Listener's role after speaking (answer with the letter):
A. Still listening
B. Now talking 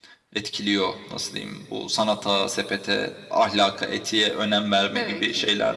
A